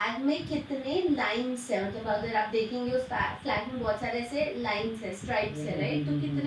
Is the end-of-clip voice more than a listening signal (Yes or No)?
No